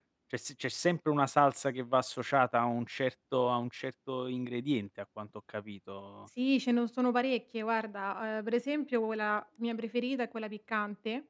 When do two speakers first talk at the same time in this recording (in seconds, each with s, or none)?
none